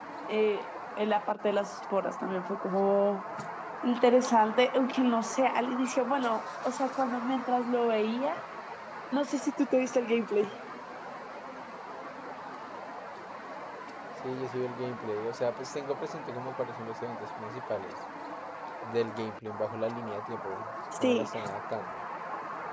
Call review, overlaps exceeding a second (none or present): none